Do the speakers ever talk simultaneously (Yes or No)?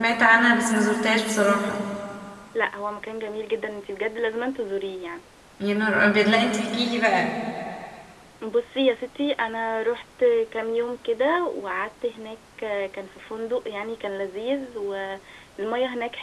No